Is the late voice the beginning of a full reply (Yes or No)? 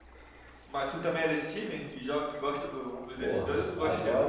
Yes